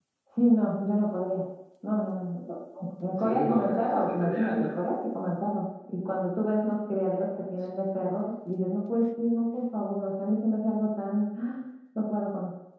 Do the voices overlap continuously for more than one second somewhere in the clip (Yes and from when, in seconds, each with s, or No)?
Yes, from 3.2 s